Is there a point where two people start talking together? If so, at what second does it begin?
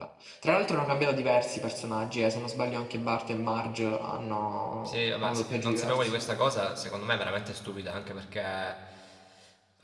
4.8 s

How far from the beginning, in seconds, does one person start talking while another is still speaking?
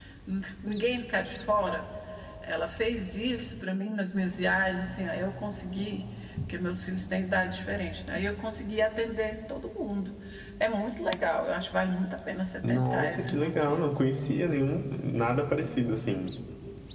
12.6 s

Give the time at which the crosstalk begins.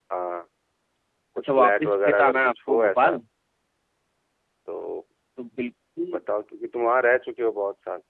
1.4 s

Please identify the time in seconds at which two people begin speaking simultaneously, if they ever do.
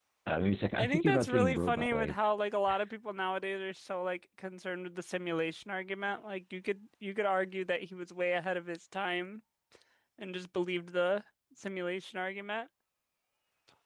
0.8 s

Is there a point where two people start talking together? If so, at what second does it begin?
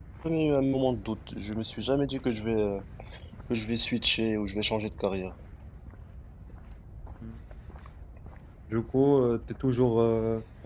none

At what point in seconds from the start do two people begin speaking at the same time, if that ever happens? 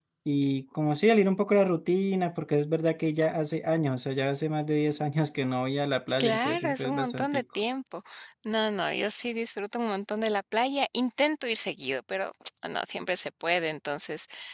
6.2 s

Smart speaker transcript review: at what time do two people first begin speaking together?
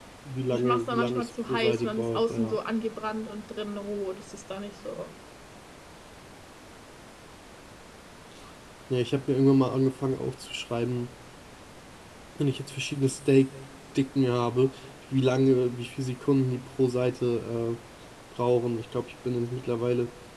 0.5 s

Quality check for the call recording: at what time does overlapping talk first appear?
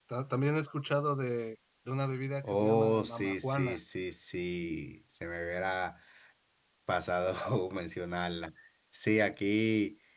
2.4 s

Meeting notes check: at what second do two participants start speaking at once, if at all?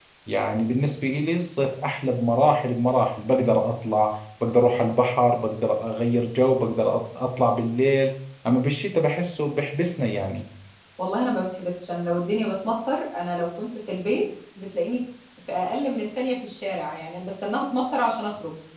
none

